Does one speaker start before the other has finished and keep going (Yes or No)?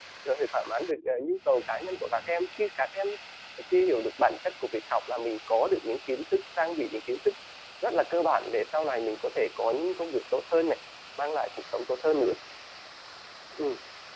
No